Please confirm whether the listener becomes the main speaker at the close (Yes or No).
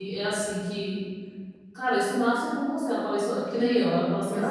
No